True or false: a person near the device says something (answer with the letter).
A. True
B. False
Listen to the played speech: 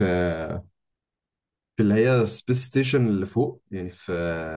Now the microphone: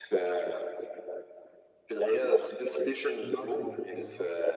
A